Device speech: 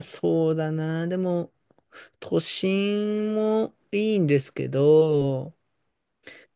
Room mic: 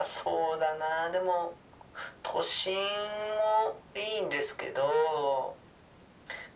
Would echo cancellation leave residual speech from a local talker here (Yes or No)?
No